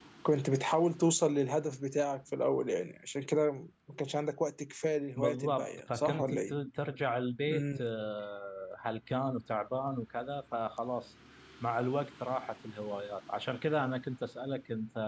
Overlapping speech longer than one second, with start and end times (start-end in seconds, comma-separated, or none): 5.2-6.6